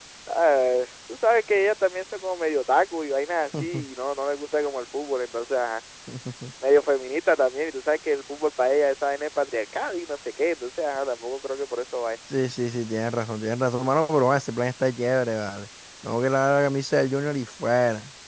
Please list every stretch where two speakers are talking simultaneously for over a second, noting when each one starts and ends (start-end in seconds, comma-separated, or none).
none